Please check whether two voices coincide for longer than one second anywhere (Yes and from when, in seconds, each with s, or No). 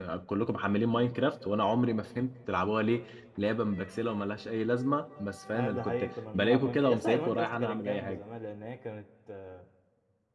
Yes, from 5.5 s